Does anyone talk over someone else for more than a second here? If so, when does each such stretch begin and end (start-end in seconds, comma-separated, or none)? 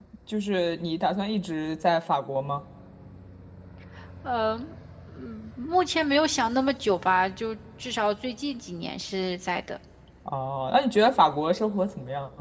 none